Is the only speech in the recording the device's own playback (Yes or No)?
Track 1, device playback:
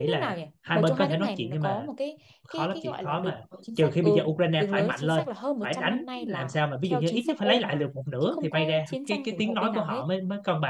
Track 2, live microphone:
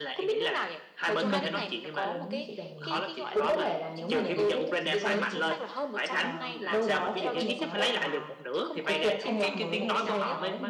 No